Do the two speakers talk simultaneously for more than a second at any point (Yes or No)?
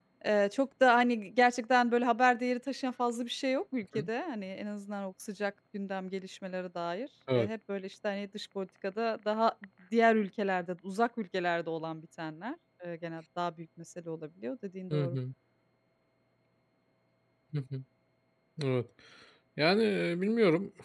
No